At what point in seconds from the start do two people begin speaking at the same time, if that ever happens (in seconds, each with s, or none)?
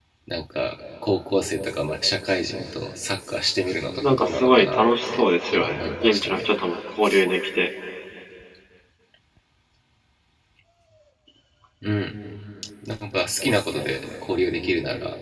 4.0 s